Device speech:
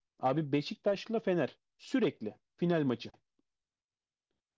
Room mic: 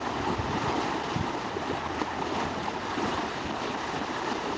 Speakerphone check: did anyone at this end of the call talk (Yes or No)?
No